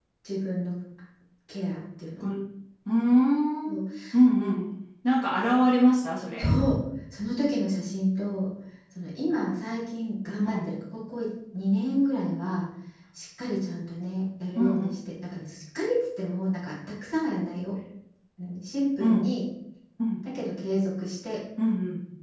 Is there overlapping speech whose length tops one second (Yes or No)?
No